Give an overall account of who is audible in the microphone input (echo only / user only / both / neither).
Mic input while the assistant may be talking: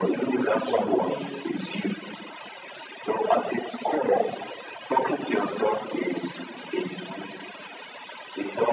both